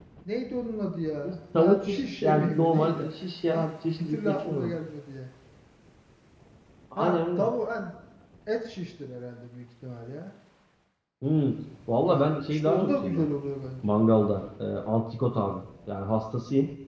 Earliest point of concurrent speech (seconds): 1 s

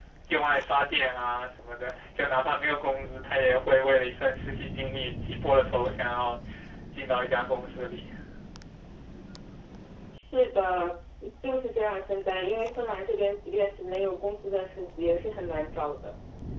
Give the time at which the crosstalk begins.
none

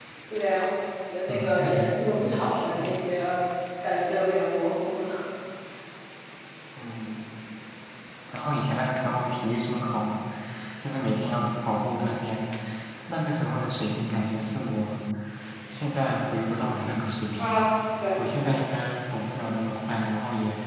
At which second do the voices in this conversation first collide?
1 s

